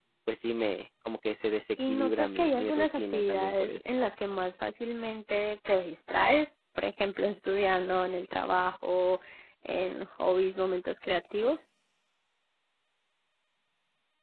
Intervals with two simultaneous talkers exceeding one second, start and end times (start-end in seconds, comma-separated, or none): 1.9-3.8